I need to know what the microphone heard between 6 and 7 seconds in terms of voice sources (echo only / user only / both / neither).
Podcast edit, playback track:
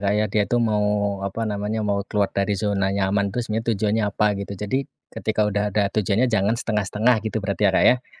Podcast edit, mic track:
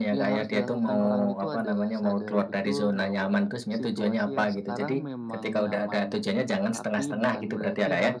both